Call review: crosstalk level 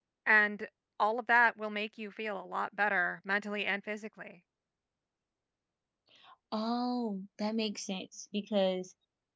none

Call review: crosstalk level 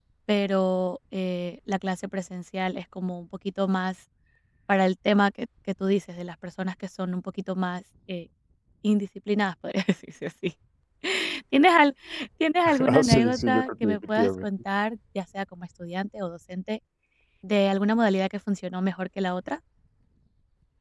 present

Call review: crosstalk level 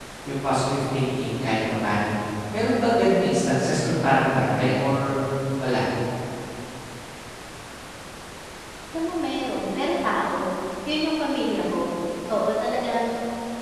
none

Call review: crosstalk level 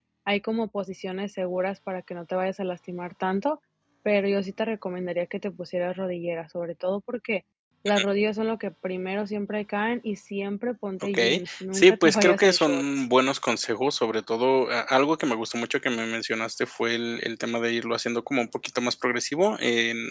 present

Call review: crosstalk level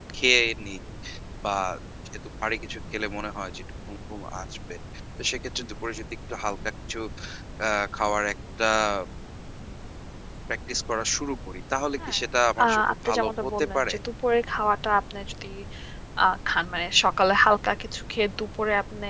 present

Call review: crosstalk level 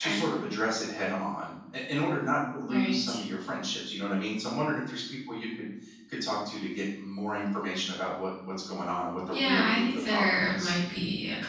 present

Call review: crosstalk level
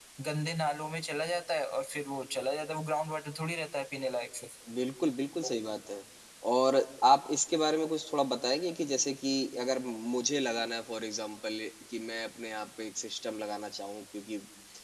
none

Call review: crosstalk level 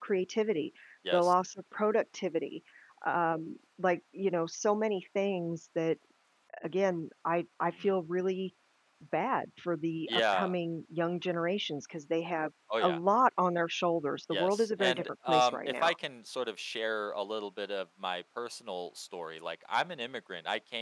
present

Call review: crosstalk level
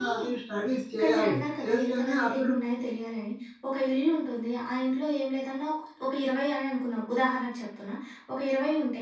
present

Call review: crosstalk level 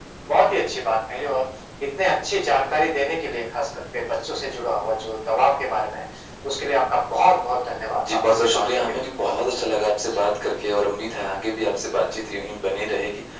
present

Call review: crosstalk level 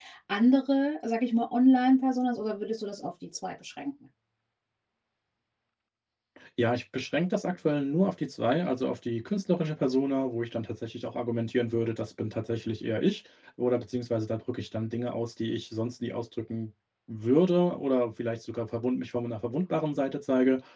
none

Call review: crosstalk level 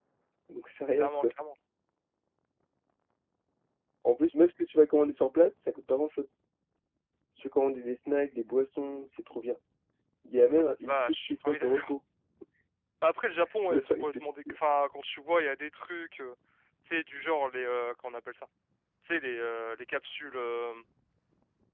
present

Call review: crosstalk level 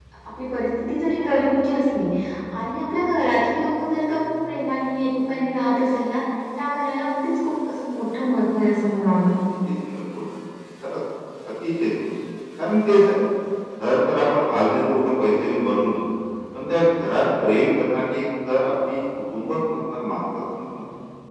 none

